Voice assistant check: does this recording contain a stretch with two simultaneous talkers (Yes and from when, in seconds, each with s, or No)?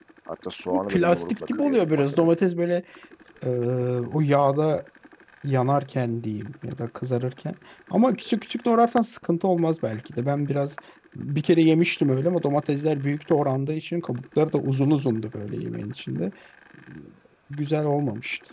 Yes, from 0.7 s